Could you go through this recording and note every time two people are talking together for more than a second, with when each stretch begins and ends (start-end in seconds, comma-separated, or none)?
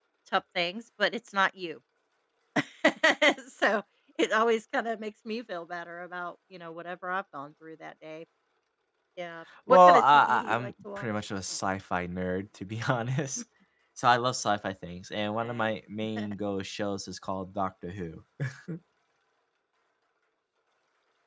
9.7-11.1